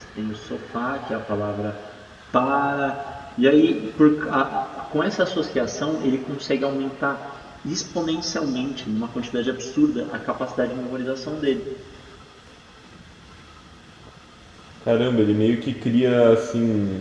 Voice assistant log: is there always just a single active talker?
Yes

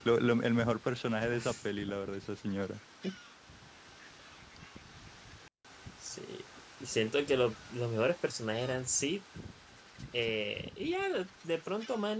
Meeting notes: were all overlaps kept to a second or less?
Yes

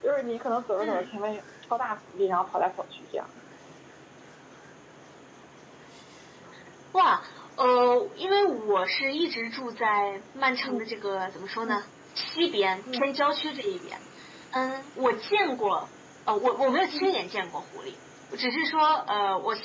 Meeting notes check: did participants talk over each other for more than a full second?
No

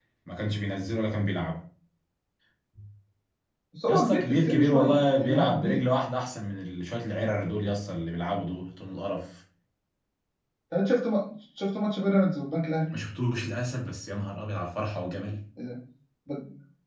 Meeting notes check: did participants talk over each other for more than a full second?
Yes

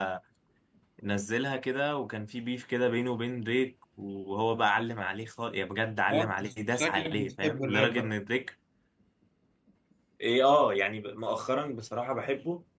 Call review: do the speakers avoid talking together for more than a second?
No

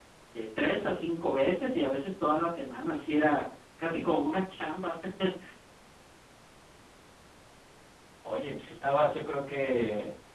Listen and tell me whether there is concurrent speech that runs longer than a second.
No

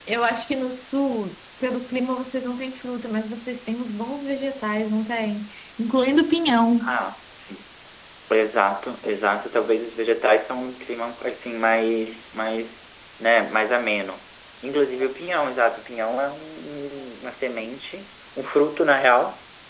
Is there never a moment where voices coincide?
Yes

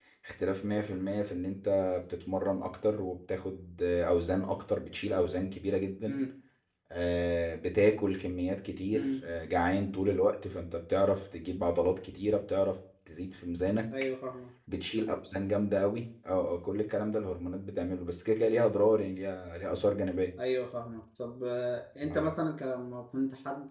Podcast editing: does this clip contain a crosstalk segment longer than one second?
No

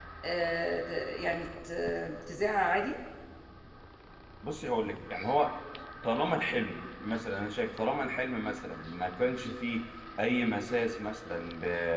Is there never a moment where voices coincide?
Yes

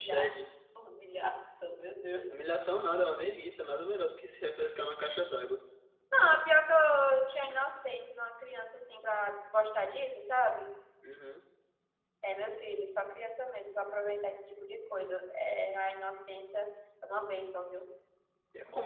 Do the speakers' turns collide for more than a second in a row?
No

